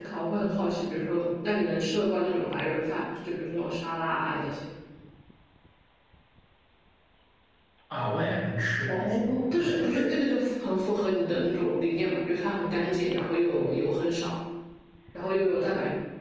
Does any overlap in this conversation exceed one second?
Yes, from 8.9 s

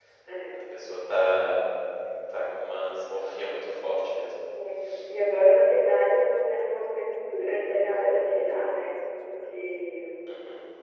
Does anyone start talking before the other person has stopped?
No

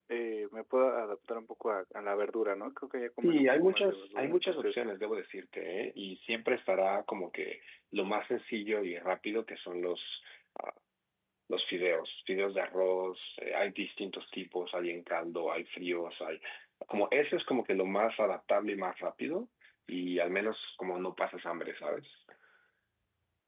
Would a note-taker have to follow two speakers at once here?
Yes, from 3.2 s

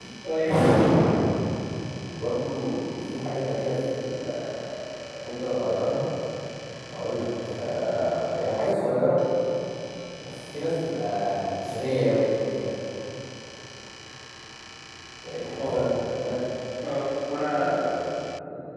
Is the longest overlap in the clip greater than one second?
No

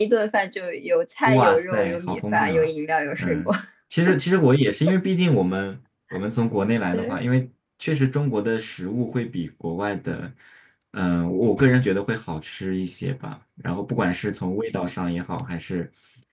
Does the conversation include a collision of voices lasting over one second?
Yes, from 1.3 s

